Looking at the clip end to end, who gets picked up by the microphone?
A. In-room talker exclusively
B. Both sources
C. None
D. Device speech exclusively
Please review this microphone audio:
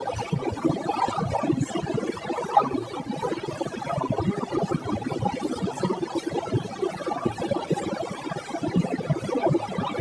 D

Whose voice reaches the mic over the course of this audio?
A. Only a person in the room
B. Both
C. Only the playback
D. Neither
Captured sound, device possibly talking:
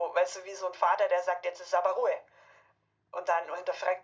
C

